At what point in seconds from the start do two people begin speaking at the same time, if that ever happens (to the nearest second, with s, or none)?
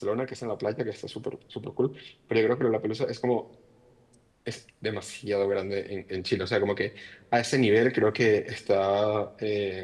none